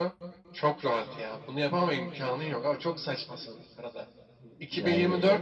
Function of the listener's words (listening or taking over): listening